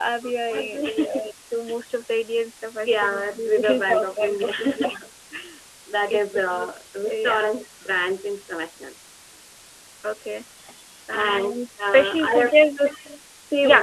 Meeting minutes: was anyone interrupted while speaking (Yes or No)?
Yes